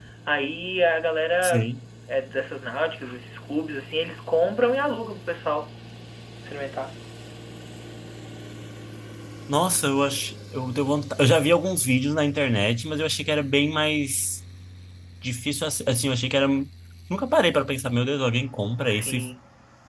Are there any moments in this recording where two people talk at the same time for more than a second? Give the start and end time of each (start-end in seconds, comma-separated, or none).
none